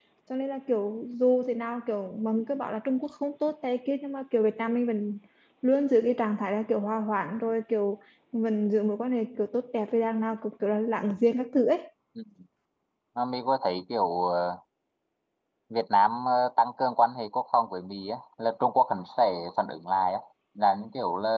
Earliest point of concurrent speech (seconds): none

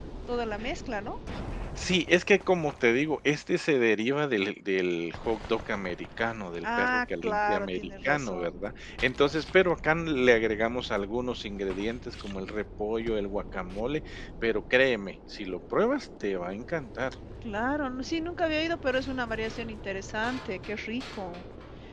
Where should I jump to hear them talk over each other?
7 s

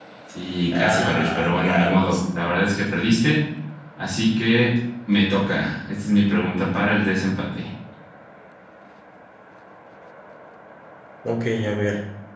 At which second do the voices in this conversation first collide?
1 s

